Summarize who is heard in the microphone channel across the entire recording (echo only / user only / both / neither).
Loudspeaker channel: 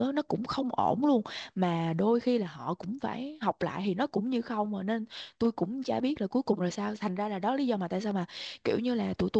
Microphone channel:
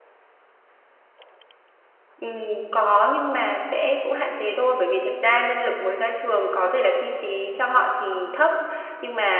user only